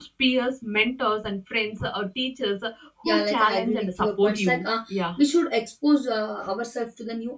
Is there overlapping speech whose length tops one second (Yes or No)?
Yes